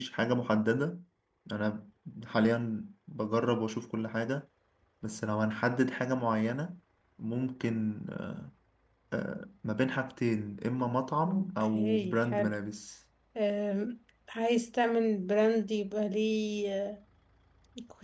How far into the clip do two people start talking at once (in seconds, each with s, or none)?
11.2 s